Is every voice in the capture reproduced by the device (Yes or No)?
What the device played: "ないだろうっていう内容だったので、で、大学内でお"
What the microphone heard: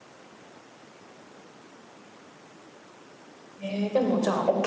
No